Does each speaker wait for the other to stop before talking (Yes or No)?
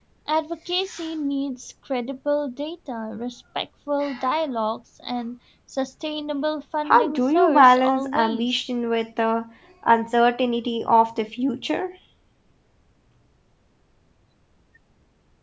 No